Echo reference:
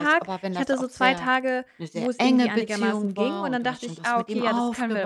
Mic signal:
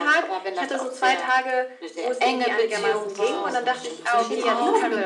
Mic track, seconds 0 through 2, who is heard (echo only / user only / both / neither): echo only